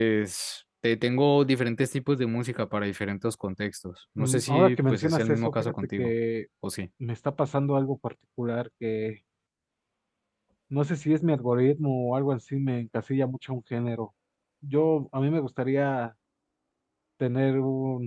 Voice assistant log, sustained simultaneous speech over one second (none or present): present